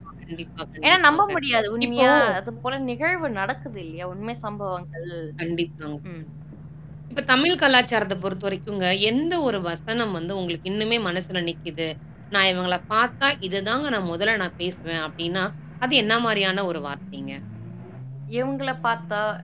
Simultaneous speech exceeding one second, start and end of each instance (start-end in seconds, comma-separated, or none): none